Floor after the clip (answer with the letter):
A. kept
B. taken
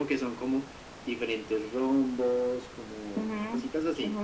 B